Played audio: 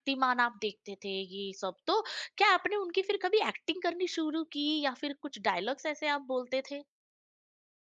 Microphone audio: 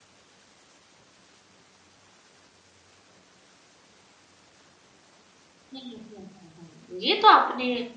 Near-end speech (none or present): present